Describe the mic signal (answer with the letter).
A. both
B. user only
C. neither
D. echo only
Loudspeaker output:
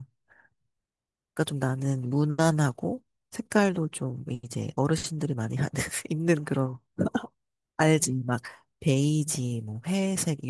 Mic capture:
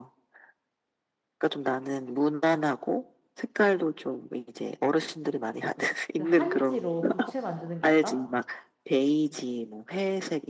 A